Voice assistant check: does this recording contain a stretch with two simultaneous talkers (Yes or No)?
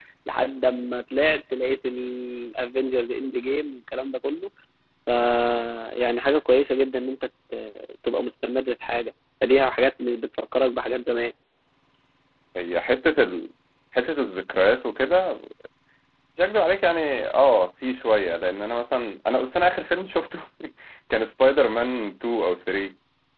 No